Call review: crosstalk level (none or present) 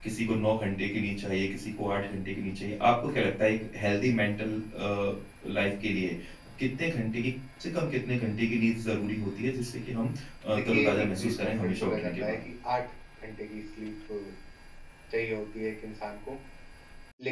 present